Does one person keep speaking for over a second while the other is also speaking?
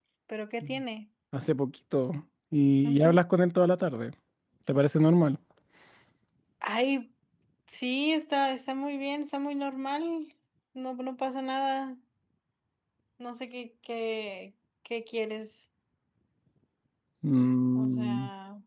No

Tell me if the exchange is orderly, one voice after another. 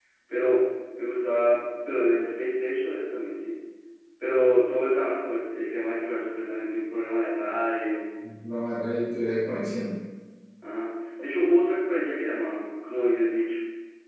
Yes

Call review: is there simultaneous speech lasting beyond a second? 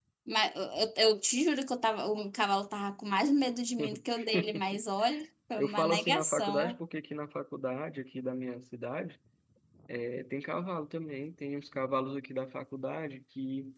Yes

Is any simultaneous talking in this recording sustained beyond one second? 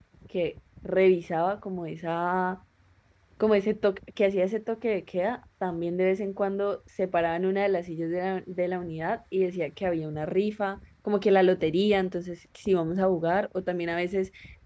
No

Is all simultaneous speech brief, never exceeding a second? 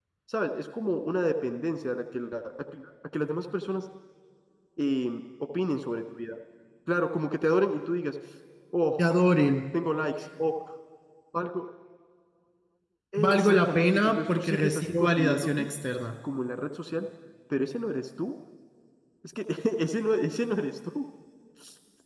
No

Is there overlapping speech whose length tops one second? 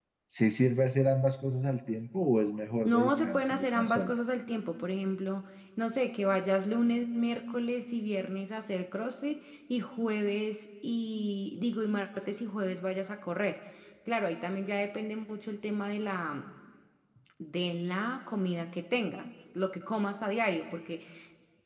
Yes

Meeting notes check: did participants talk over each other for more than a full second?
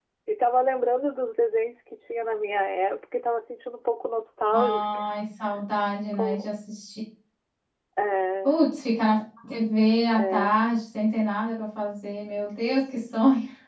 No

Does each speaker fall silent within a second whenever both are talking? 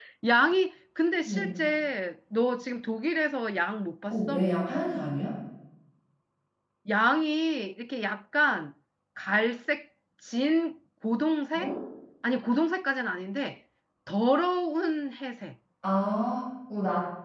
Yes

